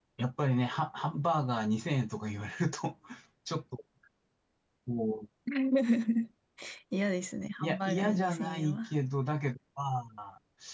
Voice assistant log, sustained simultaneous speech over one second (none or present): present